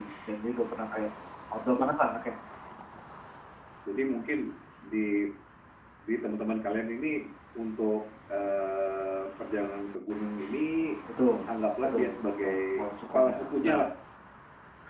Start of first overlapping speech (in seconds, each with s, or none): 11.8 s